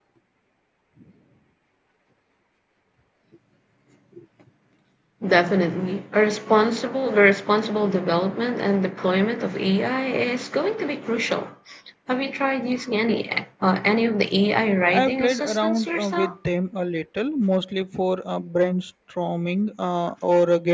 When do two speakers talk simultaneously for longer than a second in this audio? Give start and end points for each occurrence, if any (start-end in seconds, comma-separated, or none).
14.9-16.3